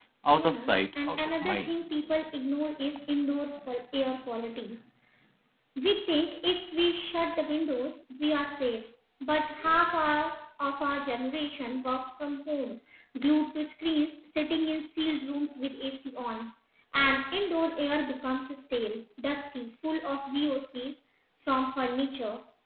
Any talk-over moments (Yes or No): Yes